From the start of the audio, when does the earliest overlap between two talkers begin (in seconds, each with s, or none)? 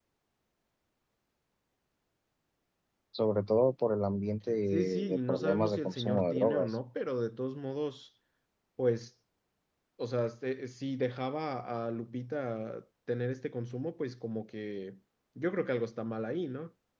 4.7 s